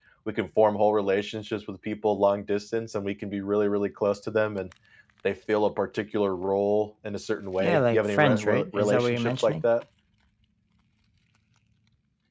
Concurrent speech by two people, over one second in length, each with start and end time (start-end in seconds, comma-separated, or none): 7.6-9.7